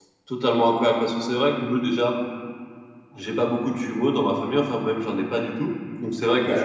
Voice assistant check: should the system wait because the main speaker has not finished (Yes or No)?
Yes